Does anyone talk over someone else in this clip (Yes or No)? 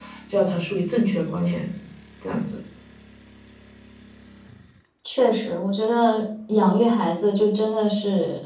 No